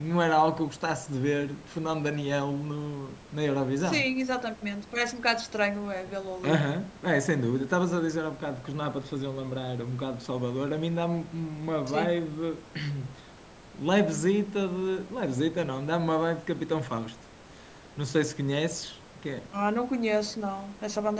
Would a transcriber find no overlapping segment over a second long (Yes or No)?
Yes